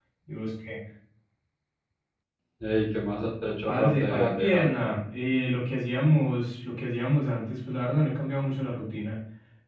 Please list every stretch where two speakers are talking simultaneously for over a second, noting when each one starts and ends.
3.7-4.9

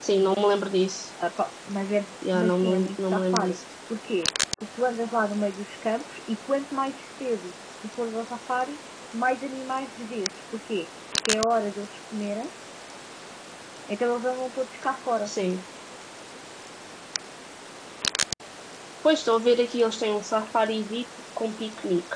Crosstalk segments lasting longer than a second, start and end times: 2.3-3.6

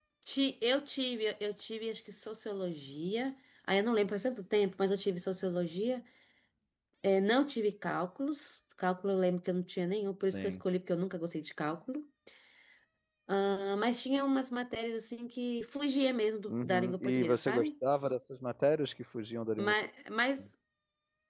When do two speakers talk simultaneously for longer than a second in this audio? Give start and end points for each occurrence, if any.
16.5-17.7

